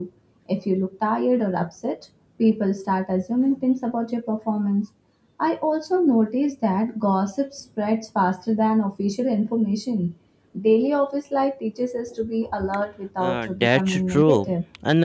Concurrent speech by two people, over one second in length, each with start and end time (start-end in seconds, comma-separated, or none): 13.2-14.5